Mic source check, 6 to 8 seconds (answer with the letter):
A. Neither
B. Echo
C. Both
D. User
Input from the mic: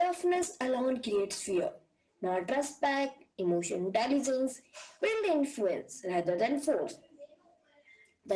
B